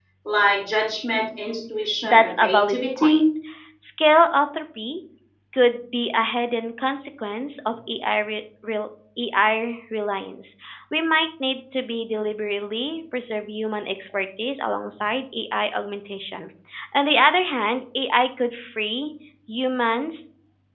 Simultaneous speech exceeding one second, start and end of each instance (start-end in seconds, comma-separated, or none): 2.0-3.2